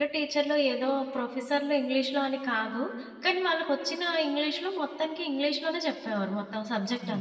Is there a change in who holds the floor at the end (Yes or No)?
Yes